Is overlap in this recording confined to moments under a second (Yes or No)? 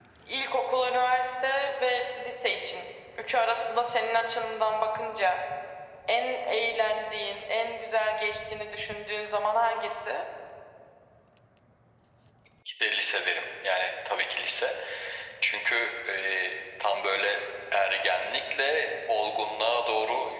Yes